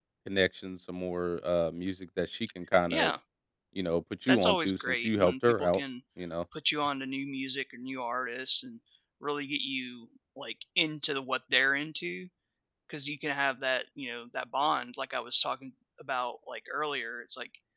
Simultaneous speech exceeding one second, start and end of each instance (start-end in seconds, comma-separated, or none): 4.3-5.8